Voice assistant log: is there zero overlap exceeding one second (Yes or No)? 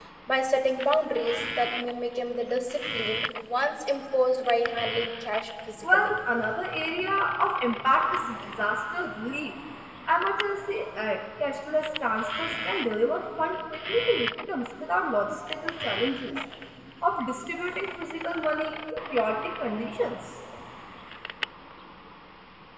Yes